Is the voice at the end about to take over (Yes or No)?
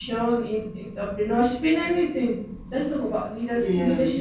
No